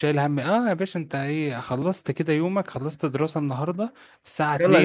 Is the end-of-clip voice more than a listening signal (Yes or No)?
No